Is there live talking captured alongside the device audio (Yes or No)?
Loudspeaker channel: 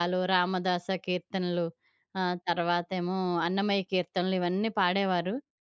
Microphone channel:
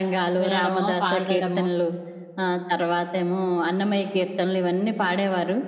Yes